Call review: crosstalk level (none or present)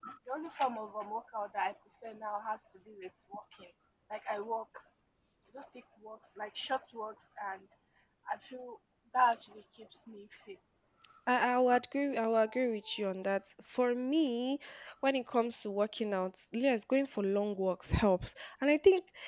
none